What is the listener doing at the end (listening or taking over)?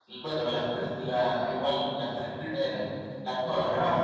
listening